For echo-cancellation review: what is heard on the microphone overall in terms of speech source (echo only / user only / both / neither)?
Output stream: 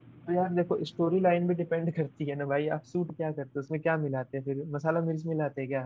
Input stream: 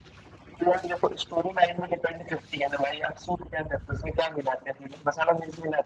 echo only